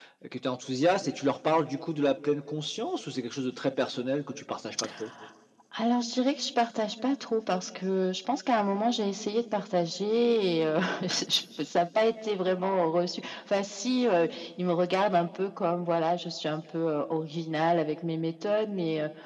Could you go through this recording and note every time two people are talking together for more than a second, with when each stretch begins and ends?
none

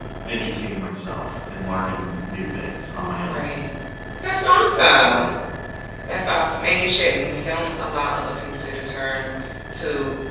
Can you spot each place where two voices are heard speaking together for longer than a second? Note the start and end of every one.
none

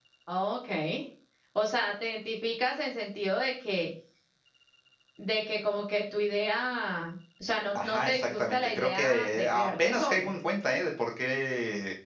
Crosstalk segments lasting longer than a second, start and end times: 7.8-10.3

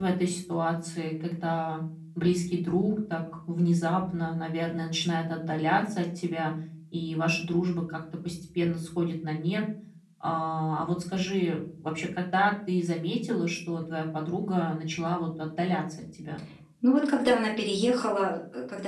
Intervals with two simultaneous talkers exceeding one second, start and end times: none

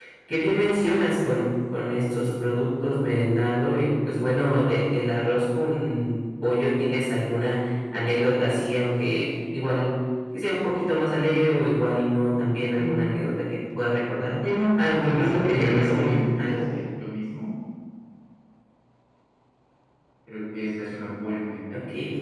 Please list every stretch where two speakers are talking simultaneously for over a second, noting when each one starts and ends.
14.8-16.6

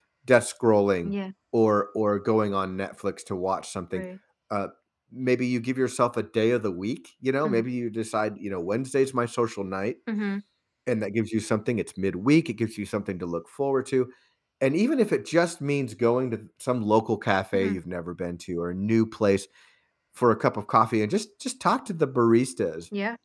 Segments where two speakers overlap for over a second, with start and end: none

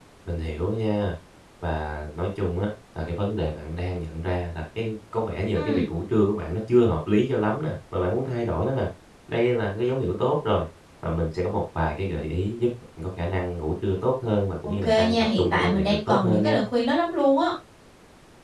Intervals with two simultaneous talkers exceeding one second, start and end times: 14.7-16.6

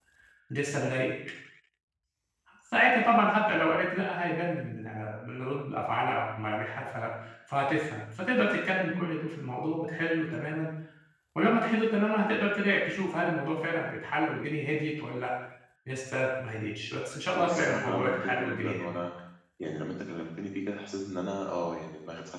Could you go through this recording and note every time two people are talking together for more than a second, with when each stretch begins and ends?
17.4-18.9

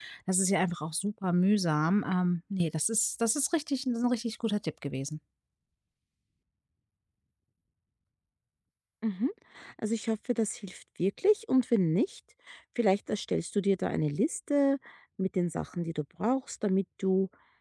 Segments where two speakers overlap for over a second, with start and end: none

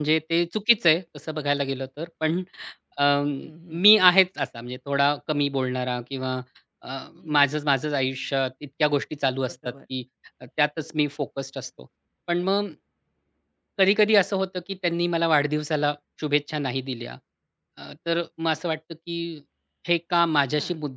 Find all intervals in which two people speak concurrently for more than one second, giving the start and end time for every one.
none

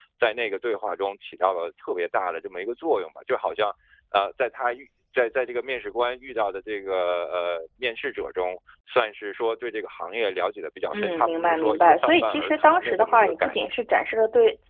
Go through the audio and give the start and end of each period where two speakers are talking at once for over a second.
10.9-13.7

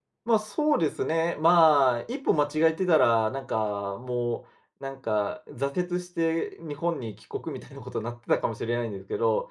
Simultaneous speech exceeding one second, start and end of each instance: none

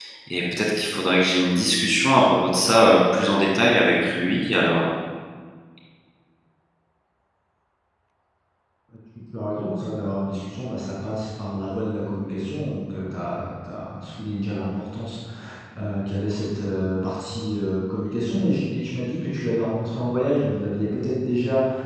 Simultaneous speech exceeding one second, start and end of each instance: none

